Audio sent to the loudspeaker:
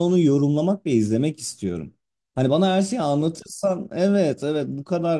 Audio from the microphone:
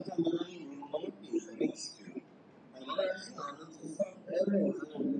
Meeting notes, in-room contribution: none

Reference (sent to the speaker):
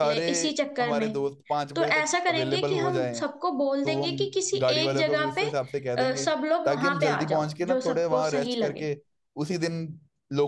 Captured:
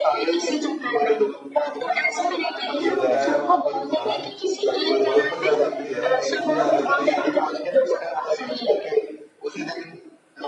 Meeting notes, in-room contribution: present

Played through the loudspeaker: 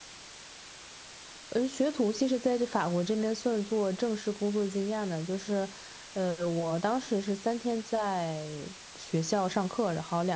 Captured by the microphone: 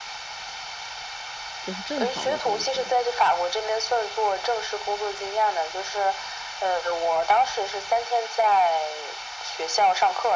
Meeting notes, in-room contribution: present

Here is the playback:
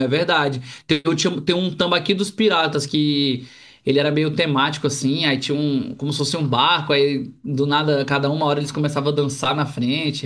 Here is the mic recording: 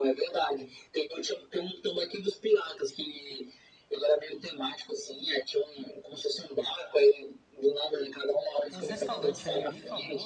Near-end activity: present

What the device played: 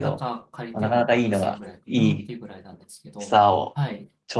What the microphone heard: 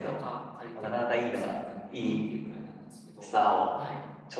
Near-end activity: none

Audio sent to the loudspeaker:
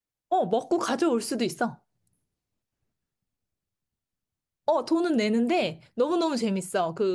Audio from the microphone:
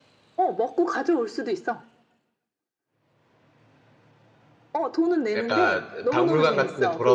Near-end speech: present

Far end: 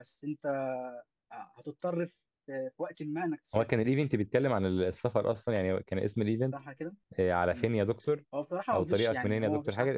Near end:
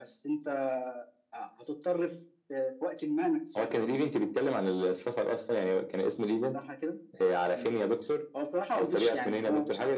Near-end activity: none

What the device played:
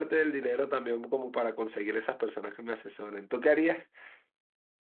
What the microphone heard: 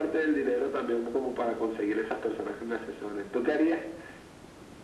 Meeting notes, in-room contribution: none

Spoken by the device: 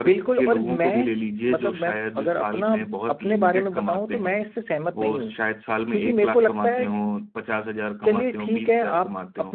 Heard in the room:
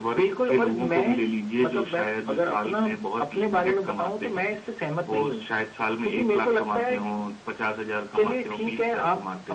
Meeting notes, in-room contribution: none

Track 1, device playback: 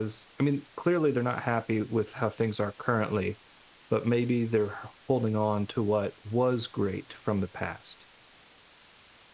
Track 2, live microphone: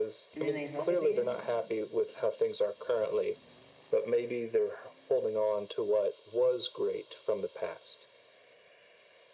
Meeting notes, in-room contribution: present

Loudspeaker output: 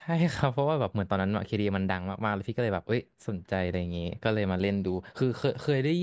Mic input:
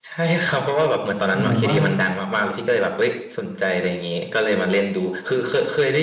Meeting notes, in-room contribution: present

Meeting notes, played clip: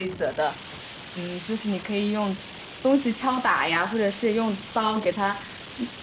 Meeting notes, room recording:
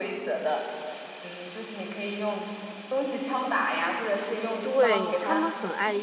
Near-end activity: present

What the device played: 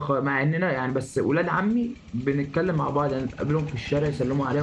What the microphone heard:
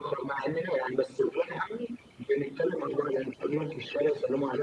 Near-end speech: none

